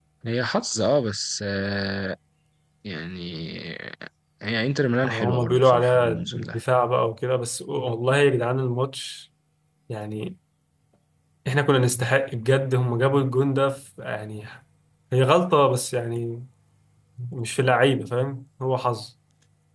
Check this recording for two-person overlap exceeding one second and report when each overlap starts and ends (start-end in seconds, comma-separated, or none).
5.0-6.6